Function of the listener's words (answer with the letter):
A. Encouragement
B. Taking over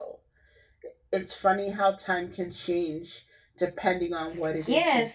B